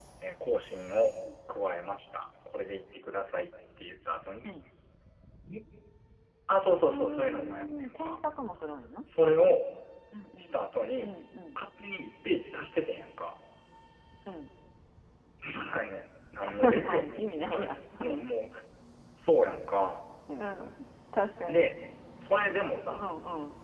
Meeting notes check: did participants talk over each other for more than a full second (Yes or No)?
Yes